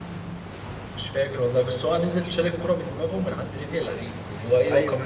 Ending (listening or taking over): taking over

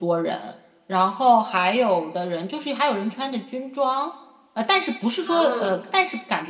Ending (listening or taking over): listening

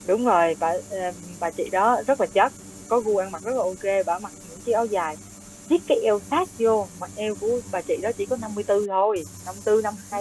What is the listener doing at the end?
taking over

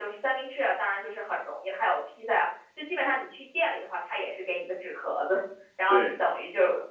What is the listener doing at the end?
listening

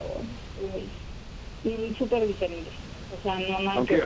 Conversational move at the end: taking over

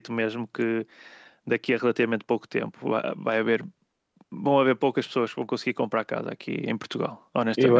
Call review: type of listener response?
taking over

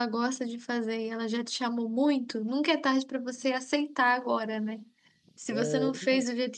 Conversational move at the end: listening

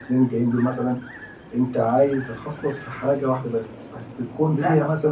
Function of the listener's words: taking over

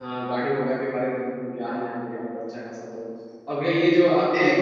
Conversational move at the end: listening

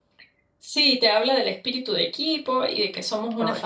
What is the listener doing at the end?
listening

